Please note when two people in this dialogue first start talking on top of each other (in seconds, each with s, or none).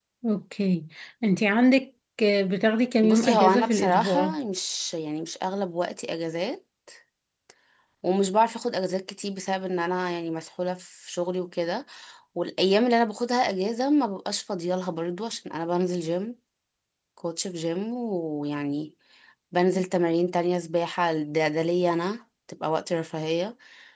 3.0 s